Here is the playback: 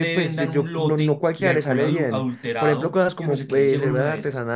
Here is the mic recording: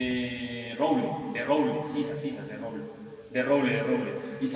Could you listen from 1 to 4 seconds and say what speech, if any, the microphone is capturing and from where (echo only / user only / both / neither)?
user only